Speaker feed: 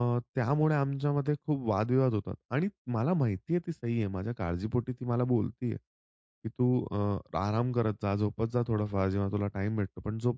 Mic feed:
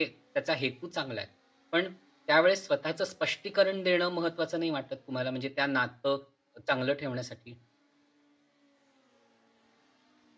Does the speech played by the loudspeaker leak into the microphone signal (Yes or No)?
No